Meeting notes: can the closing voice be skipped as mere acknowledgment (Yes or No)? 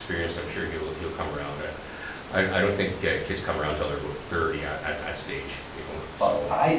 No